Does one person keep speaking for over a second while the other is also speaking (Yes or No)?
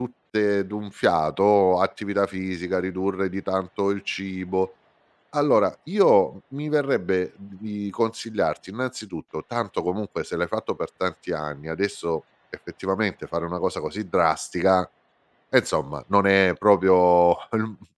No